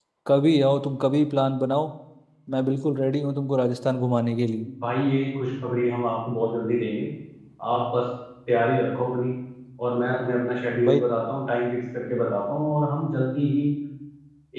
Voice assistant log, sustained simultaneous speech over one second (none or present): none